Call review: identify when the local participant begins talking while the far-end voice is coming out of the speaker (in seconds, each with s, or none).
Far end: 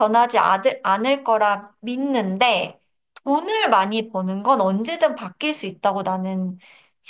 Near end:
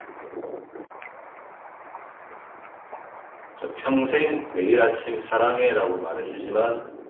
3.5 s